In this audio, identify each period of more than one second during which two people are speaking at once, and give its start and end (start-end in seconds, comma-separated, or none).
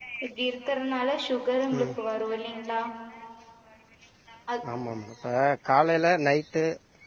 none